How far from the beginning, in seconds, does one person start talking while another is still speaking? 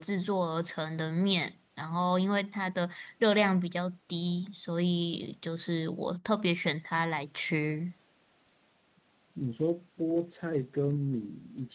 none

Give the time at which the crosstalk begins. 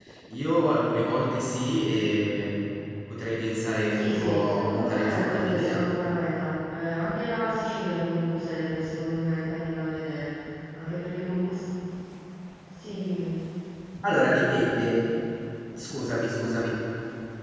3.9 s

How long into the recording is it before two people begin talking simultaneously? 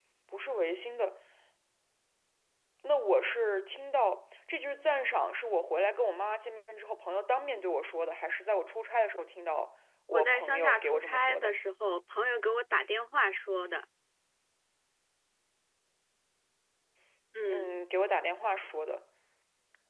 10.1 s

